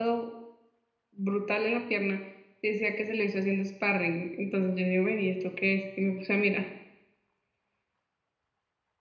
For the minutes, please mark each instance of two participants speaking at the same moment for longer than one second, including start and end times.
none

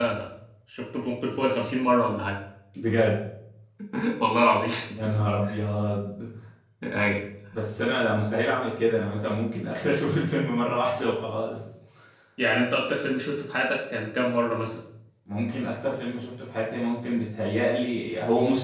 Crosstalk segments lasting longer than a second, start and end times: none

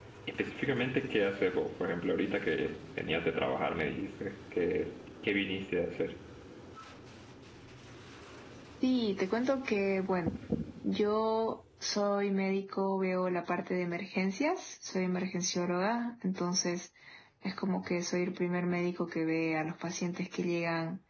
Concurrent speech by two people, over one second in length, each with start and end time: none

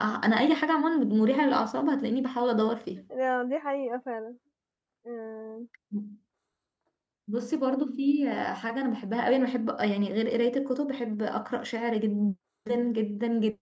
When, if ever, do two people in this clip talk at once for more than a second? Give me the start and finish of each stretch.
none

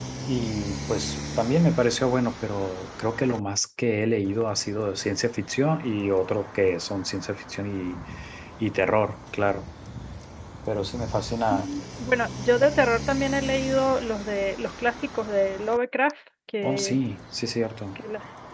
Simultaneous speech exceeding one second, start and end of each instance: none

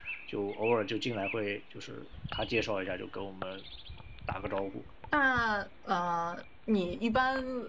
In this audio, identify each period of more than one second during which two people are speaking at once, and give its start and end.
none

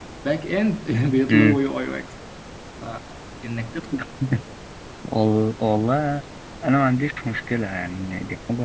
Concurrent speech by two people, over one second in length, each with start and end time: none

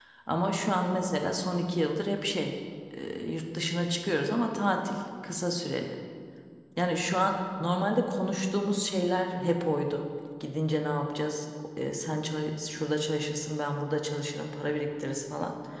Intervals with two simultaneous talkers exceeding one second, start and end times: none

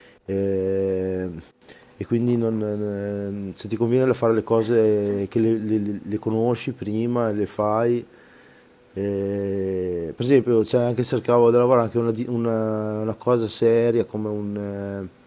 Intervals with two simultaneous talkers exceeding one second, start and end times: none

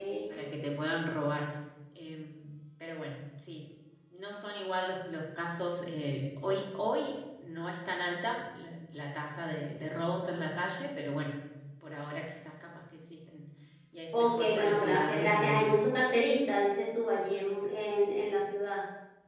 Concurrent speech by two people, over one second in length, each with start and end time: 14.1-15.7

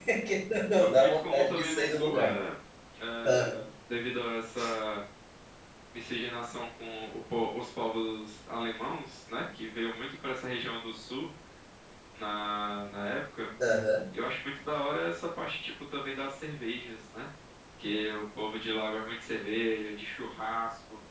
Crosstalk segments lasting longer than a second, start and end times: 0.7-2.3

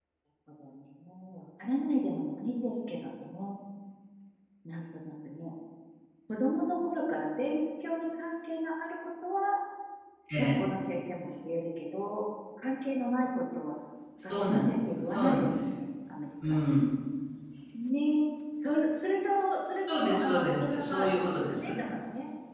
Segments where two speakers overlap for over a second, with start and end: 14.3-15.7, 19.9-21.8

